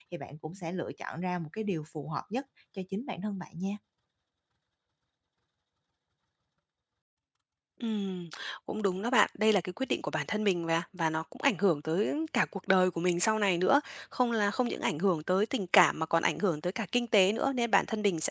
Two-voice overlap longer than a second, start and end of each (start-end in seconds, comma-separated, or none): none